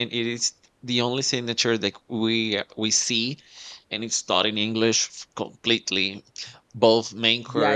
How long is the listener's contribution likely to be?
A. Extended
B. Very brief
A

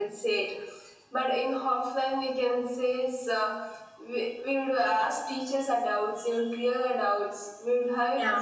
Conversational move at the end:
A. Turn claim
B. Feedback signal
B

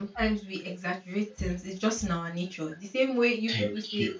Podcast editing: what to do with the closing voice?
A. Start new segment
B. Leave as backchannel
B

